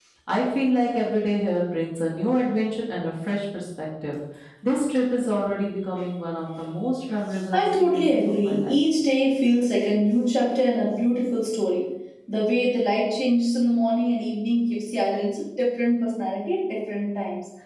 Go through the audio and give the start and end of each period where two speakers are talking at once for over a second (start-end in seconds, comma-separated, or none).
7.5-8.8